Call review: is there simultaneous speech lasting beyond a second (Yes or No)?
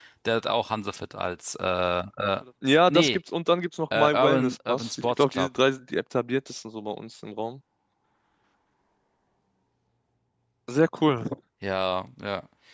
Yes